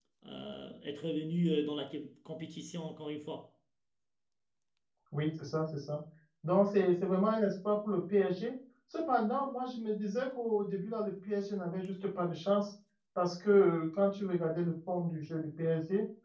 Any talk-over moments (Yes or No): No